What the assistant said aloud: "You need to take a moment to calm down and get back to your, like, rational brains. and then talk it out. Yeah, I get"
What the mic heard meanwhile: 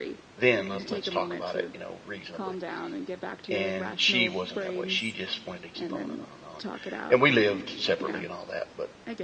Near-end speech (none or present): present